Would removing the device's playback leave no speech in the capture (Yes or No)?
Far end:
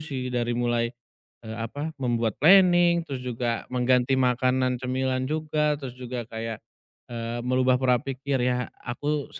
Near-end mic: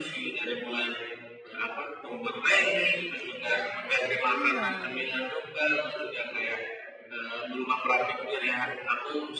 No